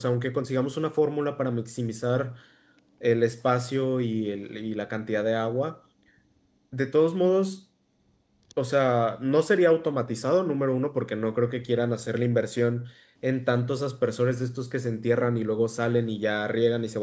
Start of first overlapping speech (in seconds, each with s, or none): none